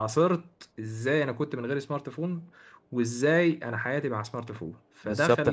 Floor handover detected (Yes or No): Yes